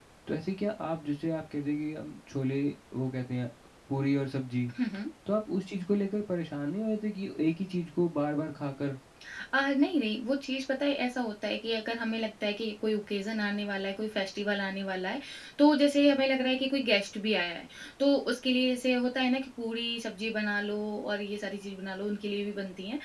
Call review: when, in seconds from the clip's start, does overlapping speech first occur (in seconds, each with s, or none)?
none